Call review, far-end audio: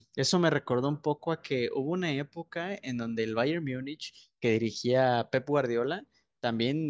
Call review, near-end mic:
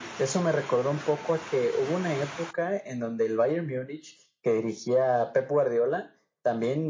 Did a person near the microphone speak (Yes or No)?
No